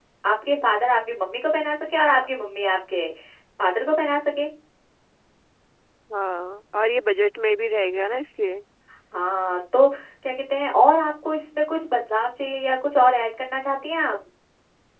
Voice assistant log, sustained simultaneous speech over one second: none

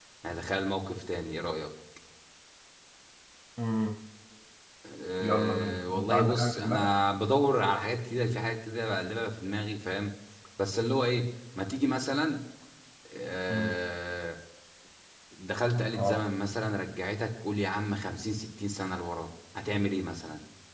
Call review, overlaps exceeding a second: present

